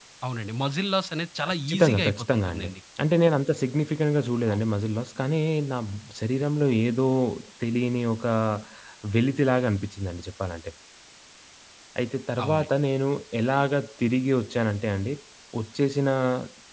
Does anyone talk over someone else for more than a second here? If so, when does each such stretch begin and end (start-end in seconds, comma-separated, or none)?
1.4-2.7